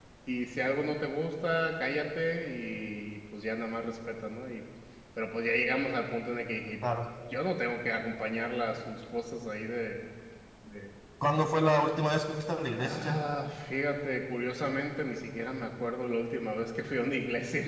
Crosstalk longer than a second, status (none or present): none